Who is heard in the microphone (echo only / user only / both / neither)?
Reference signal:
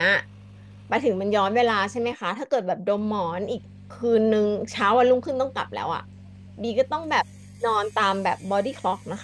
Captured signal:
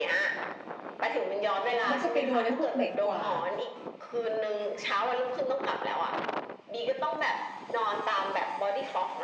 both